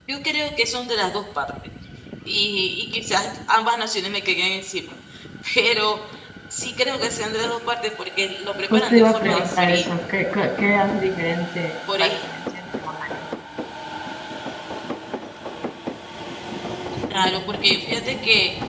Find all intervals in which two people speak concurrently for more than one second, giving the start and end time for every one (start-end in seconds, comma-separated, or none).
8.7-9.9